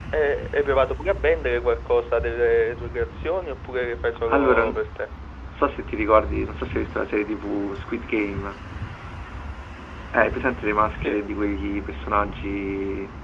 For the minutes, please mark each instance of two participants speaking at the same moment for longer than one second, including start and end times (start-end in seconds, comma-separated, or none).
none